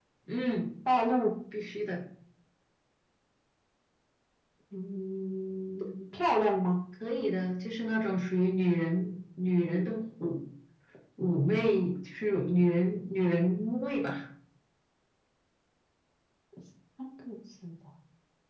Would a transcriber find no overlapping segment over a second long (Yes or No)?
Yes